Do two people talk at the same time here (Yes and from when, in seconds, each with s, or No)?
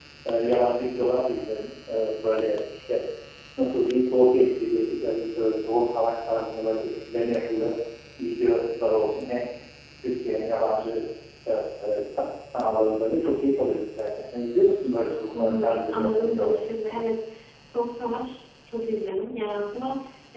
Yes, from 15.3 s